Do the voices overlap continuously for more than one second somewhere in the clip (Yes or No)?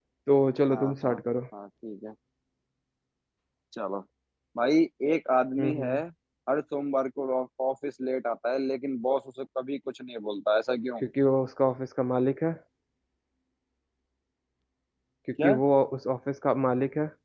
No